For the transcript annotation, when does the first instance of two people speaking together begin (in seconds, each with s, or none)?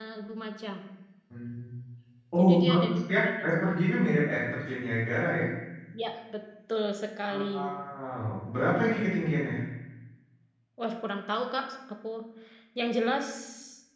2.4 s